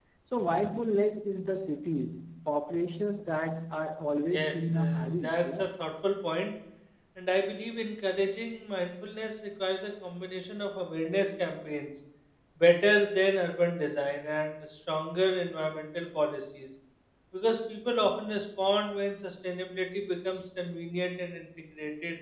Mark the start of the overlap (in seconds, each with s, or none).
4.3 s